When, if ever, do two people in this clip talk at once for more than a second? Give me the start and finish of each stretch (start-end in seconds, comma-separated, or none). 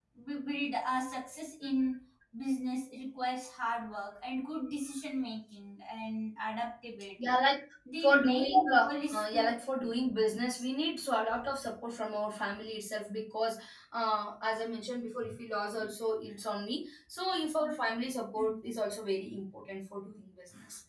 8.0-9.6